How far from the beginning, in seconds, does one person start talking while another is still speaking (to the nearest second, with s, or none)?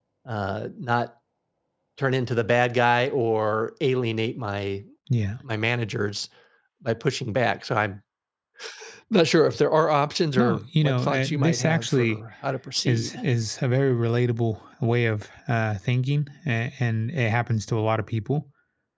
10 s